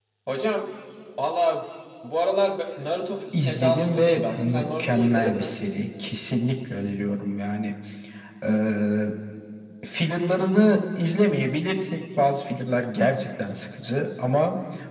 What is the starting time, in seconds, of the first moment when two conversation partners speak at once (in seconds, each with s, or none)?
3.3 s